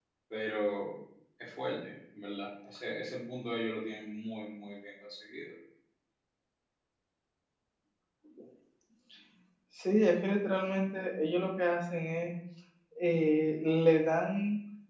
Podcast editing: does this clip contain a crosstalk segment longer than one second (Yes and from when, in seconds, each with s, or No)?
No